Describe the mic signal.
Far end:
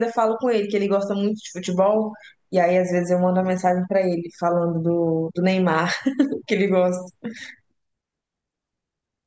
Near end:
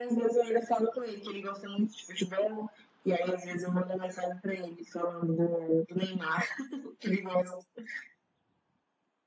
echo only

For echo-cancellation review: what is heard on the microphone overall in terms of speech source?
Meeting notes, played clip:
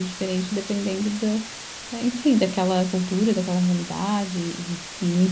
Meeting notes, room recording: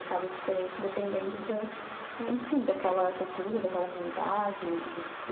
echo only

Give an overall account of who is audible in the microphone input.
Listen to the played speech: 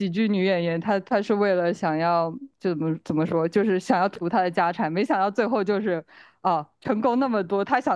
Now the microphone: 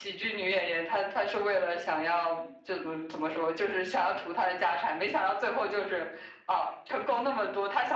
echo only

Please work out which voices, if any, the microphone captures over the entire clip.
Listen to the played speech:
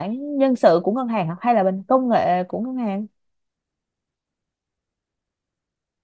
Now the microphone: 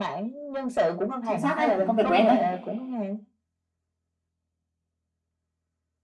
both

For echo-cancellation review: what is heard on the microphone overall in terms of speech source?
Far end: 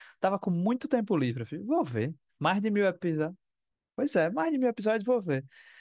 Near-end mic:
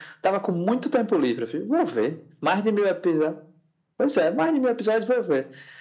echo only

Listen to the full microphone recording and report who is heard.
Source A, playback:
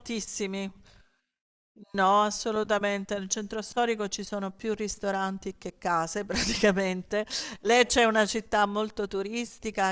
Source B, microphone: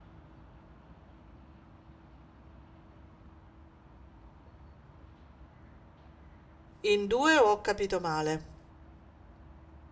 user only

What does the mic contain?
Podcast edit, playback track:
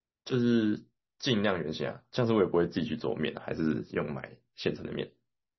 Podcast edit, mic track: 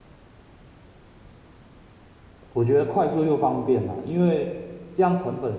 user only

